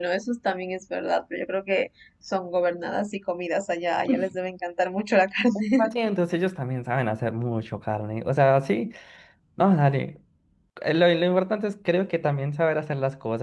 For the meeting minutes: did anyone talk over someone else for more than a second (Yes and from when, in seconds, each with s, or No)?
No